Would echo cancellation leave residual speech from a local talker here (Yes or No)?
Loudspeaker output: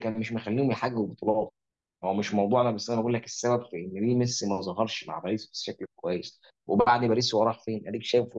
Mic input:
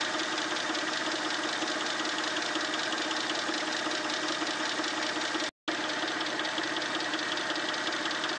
No